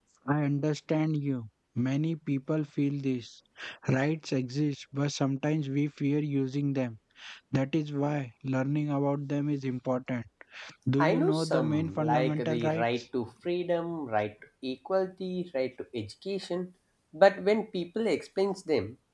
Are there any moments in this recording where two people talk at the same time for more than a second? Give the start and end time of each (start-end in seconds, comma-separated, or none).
11.0-12.8